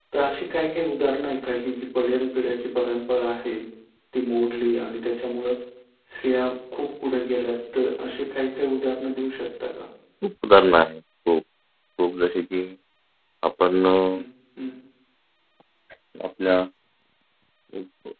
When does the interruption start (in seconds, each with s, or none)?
none